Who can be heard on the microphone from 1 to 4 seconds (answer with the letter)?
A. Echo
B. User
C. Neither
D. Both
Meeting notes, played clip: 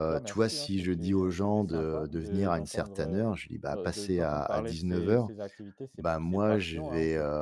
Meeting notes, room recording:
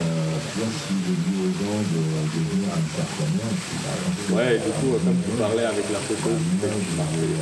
A